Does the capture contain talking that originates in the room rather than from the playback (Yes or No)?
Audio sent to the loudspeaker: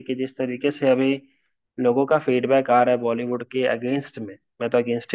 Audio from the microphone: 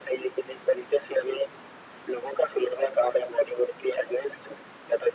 No